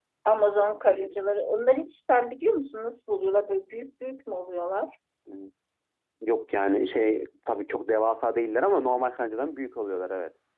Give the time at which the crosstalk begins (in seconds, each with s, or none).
none